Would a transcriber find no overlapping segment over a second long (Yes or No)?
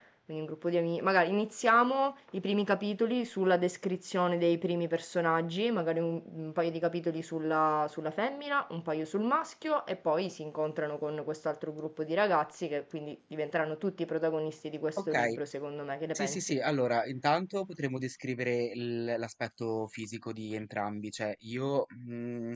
Yes